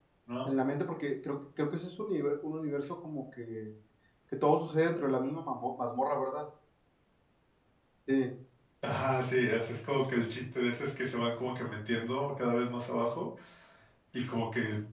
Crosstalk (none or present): none